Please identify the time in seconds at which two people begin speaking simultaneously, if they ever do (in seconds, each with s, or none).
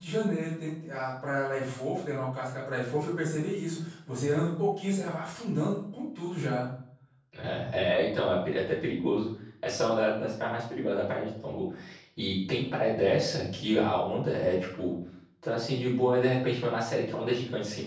none